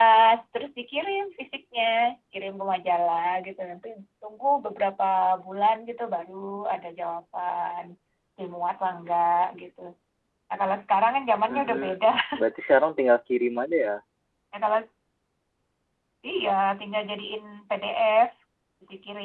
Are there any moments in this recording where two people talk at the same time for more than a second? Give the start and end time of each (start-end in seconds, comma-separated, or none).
none